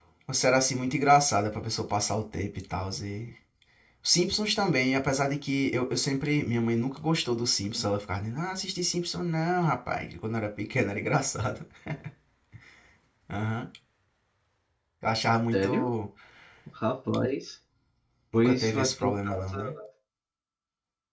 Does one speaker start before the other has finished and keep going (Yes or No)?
Yes